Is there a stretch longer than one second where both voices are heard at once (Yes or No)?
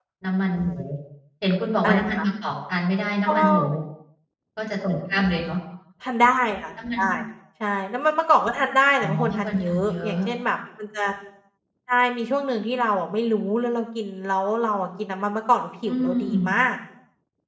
Yes